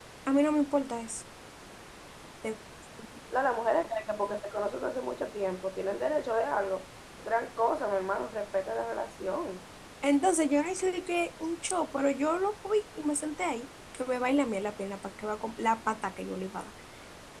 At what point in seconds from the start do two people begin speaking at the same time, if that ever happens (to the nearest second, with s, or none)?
none